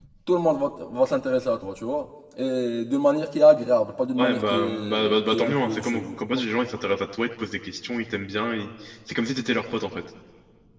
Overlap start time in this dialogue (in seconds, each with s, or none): 4.2 s